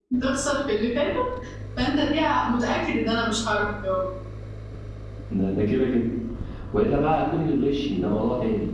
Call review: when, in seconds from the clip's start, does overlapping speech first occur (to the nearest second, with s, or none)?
none